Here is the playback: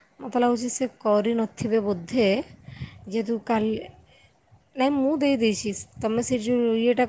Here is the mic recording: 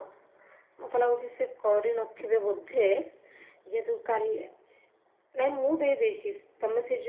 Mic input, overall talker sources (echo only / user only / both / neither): echo only